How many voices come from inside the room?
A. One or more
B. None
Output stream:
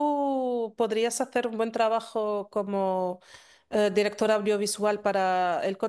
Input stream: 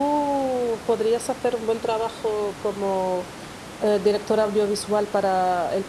B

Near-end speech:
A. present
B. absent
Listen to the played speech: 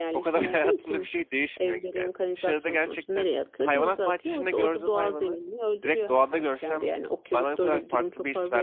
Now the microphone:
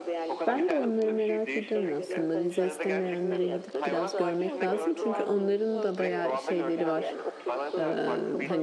A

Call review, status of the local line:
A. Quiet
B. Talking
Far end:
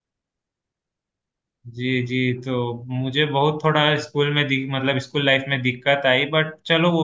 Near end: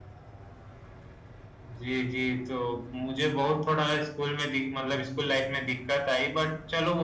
A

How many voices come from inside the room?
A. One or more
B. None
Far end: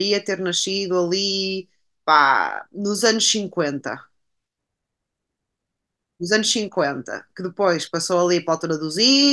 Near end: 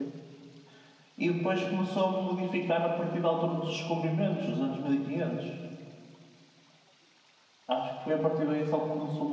A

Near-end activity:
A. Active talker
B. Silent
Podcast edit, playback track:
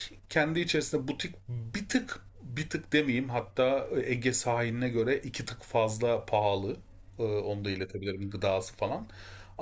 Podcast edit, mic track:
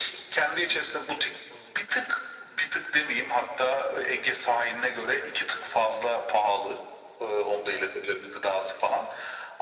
B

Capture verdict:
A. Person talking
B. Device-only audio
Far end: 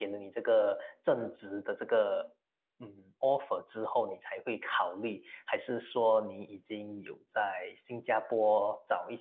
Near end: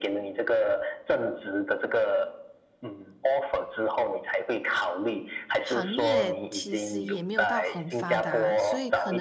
A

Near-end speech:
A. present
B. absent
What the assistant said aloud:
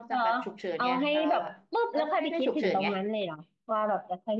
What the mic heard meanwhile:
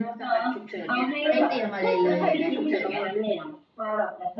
A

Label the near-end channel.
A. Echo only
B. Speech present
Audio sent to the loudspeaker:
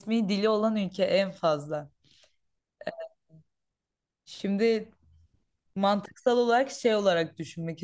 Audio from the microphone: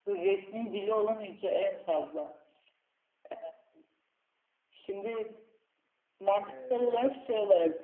B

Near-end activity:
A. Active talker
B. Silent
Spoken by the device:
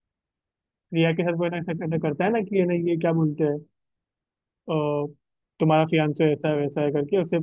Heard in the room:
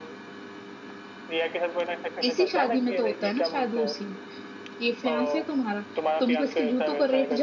A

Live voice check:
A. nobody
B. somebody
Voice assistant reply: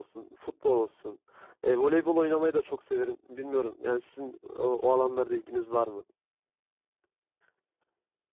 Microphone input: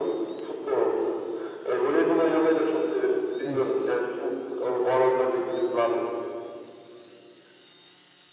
B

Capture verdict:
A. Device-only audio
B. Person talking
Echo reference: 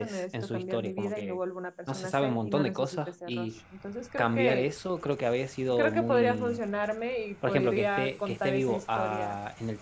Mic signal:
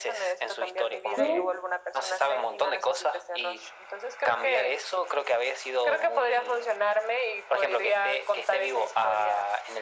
B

